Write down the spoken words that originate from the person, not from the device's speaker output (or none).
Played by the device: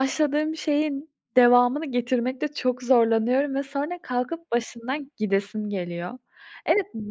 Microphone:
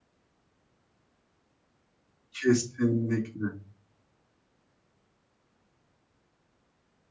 Kesinlikle.